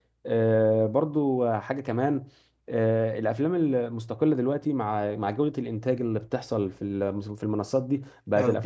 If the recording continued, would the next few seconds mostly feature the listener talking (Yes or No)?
No